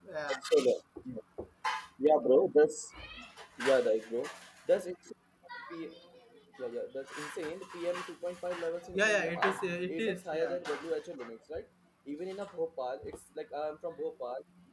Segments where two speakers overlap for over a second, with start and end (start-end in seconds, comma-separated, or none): 8.9-10.6